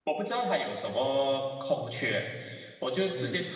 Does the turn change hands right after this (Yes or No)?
No